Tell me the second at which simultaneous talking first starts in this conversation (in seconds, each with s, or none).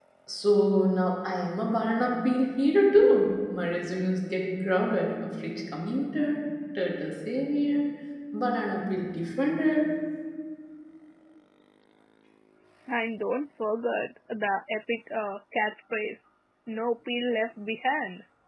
none